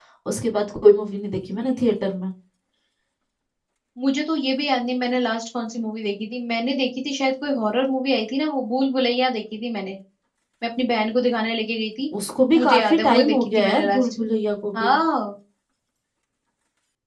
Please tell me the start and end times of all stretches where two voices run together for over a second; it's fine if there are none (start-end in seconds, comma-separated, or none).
12.5-14.1